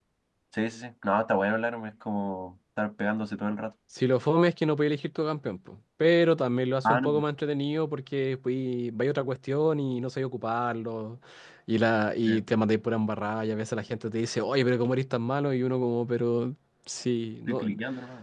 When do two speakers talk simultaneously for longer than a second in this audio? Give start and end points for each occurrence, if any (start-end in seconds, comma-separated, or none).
none